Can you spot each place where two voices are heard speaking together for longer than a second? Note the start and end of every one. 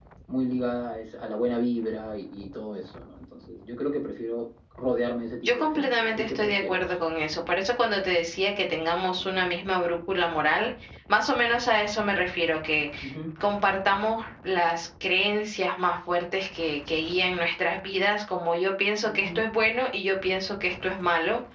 5.4-6.9

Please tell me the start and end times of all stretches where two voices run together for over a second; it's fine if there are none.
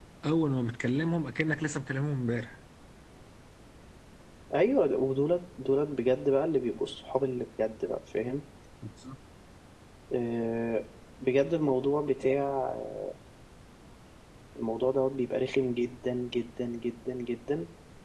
none

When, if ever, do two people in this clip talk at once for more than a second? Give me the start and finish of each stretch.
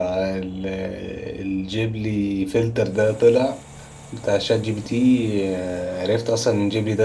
none

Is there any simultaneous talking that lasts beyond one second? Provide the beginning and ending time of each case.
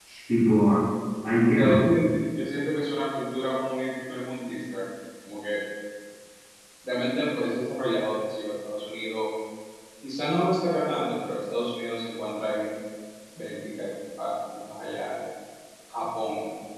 none

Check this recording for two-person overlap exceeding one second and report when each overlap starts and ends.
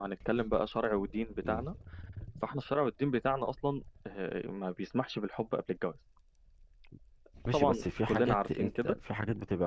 7.5-8.9

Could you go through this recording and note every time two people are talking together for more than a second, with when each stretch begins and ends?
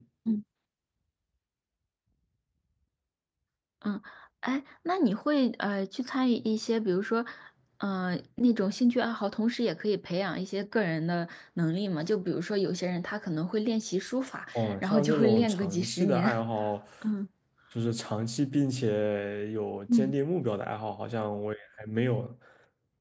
14.6-16.3

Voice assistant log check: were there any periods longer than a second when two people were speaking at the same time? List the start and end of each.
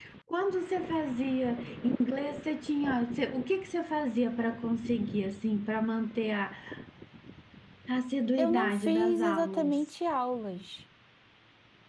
8.4-9.8

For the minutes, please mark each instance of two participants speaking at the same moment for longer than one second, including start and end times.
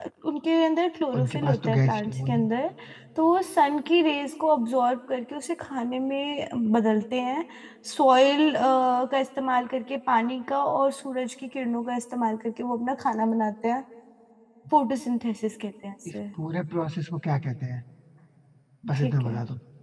1.2-2.5

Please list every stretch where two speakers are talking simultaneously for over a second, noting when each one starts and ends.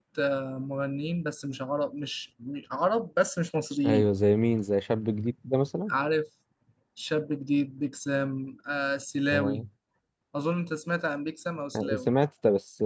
none

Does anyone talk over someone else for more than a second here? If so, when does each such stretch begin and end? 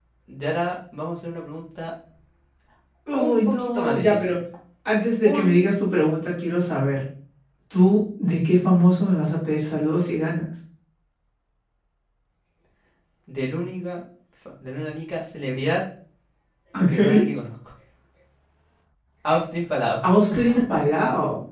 3.2-4.4

